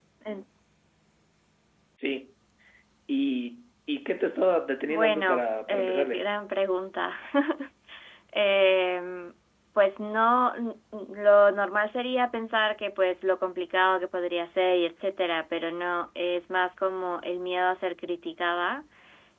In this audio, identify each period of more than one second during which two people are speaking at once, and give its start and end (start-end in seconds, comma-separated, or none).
4.9-6.2